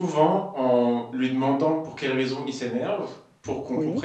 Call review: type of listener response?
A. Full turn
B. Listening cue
B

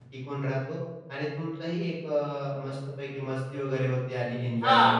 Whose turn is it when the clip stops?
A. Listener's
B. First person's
A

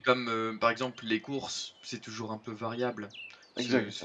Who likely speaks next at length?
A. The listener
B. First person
B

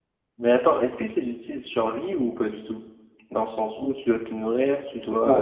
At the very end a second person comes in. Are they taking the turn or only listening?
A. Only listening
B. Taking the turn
B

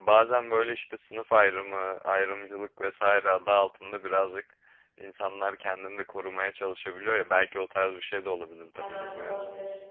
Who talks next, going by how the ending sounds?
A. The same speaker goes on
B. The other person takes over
B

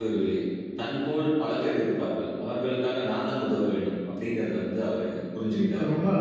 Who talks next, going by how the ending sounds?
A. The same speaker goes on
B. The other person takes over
B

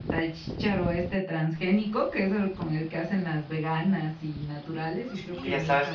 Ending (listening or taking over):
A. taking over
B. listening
A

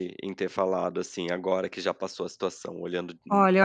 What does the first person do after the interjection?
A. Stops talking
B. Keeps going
A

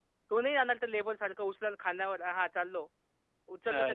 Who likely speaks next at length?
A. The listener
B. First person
B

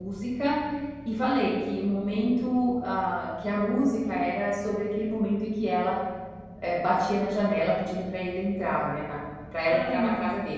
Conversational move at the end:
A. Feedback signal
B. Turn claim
A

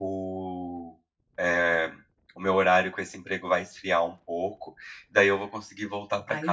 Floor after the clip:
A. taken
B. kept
A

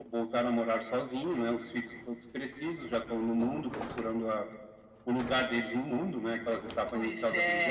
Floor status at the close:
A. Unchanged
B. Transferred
A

